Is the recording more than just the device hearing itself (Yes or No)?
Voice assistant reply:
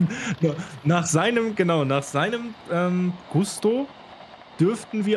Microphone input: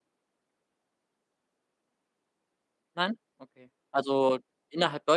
Yes